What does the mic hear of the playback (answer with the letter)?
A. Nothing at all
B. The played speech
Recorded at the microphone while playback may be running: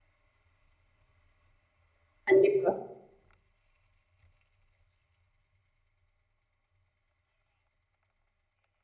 A